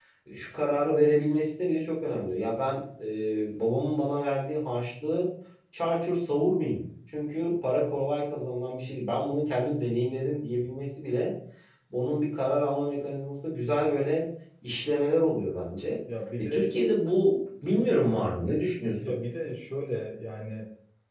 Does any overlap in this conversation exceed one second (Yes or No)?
No